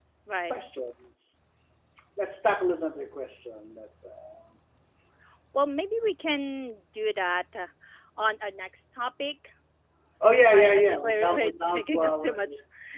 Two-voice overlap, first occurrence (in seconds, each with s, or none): 10.5 s